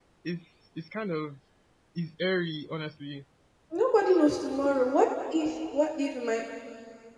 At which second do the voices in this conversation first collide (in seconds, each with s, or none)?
none